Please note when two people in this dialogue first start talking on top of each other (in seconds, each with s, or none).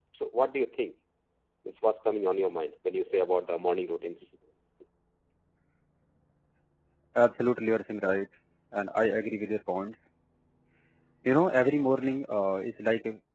none